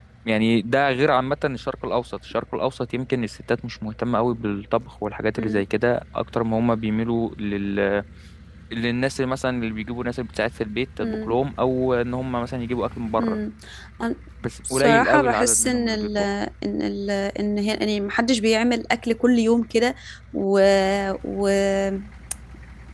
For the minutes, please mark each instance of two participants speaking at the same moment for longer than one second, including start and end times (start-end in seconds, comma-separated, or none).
14.7-16.2